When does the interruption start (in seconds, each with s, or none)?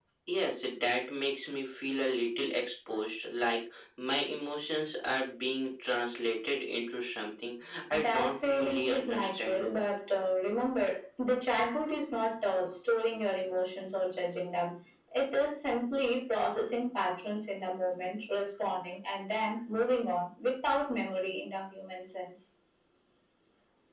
7.9 s